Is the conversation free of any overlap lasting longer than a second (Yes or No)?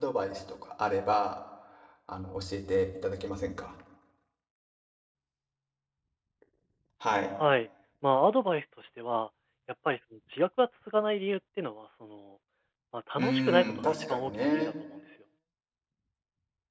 No